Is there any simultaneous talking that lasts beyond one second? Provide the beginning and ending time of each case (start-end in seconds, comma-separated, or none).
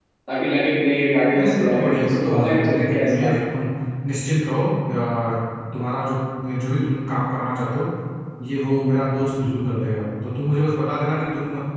1.3-3.4